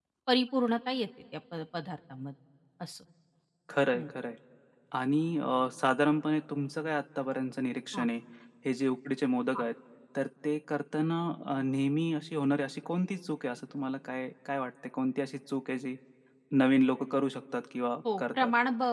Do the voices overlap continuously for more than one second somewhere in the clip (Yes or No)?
No